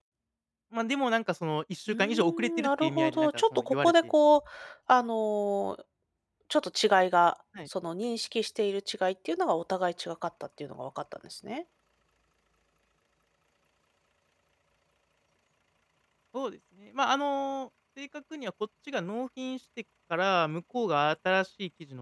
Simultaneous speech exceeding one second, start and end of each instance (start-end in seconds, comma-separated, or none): 1.9-3.9